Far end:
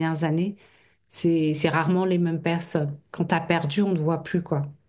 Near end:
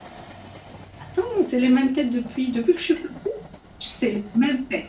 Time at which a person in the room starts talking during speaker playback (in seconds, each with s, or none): 1.0 s